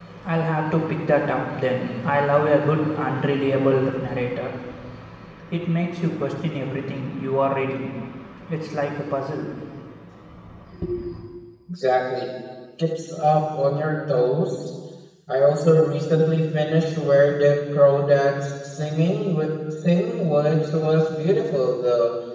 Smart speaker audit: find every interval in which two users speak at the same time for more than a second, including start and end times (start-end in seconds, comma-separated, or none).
none